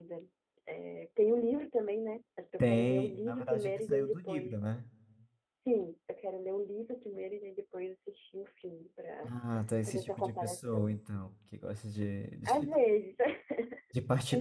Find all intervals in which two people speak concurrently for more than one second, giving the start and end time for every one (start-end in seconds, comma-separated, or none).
2.6-4.5, 9.9-11.3